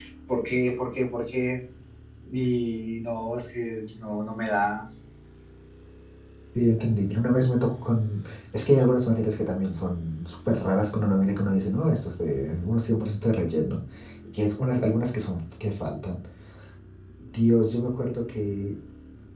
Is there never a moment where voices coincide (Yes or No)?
Yes